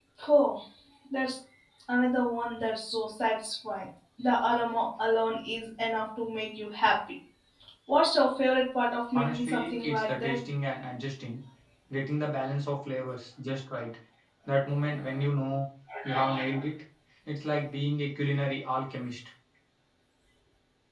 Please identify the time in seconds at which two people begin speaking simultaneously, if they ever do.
9.1 s

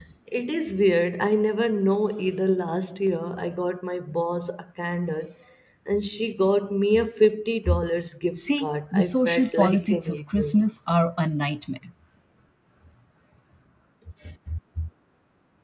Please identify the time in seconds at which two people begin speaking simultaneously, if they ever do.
8.3 s

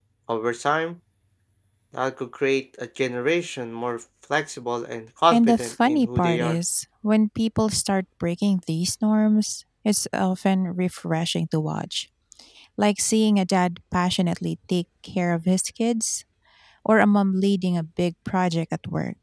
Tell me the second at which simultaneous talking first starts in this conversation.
5.3 s

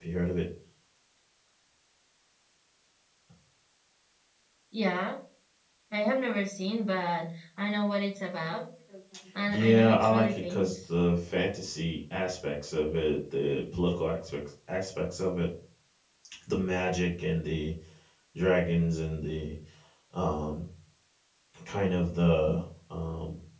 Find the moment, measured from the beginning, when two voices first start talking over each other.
9.5 s

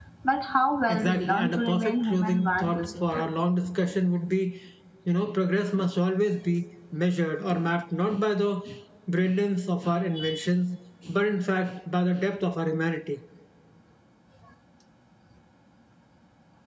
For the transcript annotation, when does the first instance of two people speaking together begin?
0.9 s

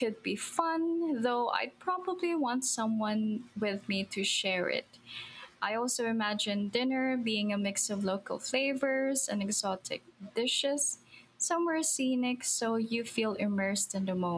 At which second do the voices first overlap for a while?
none

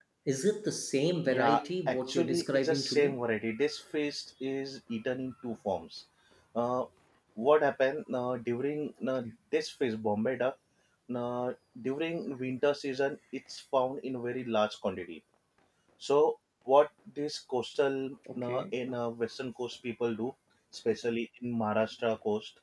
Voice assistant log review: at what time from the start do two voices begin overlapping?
1.3 s

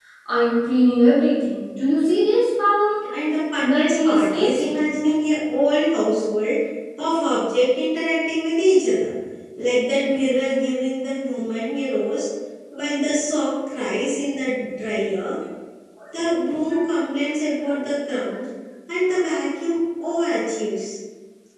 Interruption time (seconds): 3.6 s

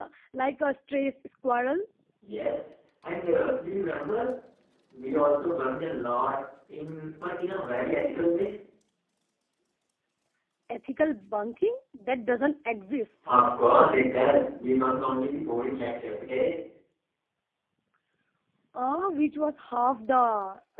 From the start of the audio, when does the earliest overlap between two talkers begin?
none

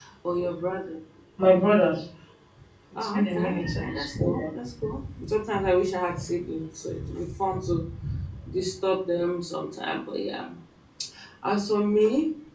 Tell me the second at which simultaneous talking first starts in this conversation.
3.0 s

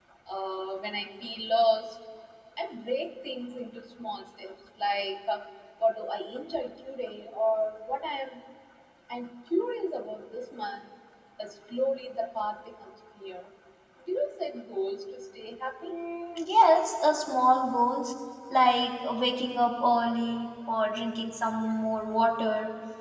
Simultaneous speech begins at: none

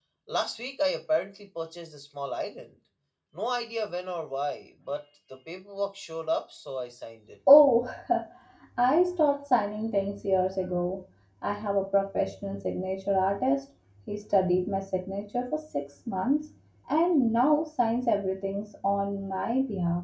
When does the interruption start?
none

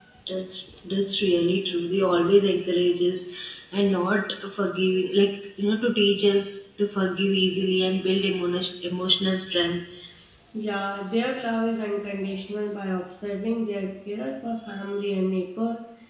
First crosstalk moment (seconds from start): none

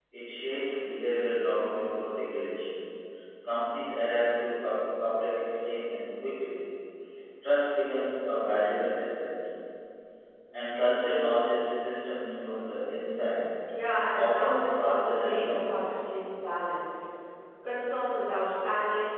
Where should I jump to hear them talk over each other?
14.1 s

